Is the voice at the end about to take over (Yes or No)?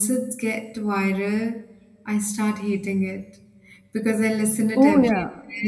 No